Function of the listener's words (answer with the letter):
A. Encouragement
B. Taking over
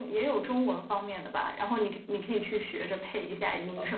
B